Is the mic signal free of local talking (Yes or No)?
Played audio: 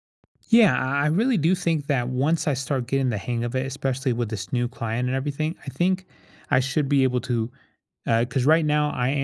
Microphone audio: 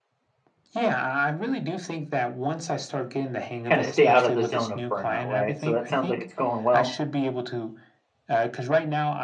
No